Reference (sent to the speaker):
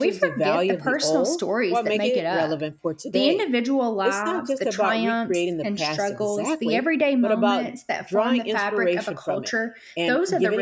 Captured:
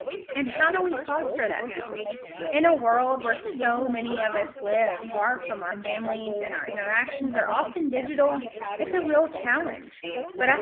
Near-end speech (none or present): present